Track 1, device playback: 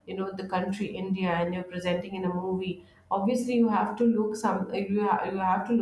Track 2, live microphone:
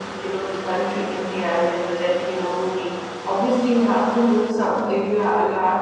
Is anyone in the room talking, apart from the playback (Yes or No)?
No